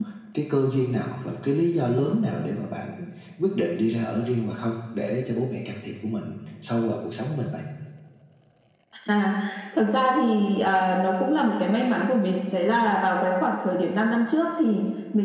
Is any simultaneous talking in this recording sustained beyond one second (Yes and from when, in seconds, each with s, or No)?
No